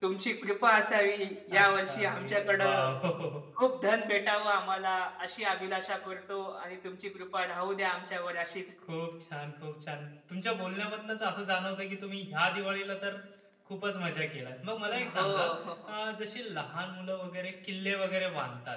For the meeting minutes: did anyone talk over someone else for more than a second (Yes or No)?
Yes